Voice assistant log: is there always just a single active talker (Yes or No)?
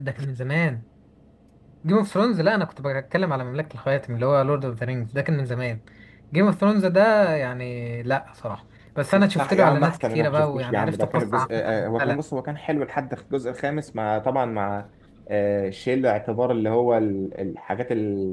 No